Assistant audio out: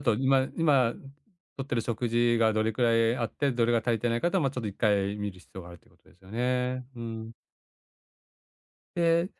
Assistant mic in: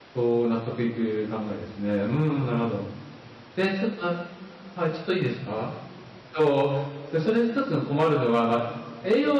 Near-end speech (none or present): present